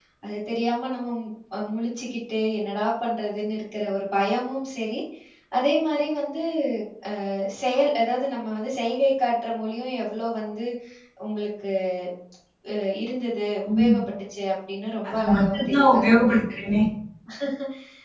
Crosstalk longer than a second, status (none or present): present